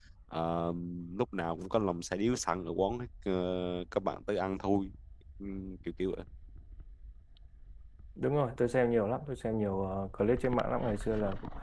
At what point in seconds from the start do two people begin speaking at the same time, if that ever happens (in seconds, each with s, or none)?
none